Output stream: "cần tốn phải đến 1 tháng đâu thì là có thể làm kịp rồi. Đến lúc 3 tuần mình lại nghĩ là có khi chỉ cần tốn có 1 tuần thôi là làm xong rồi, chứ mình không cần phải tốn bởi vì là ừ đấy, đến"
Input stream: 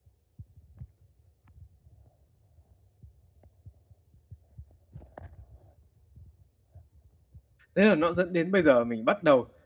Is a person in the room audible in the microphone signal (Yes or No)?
Yes